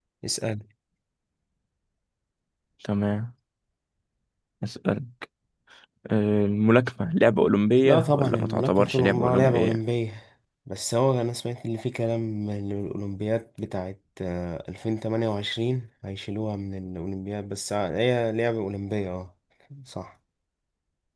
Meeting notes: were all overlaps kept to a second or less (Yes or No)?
No